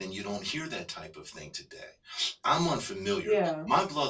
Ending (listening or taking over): listening